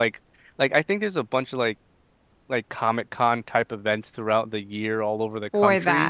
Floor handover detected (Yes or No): No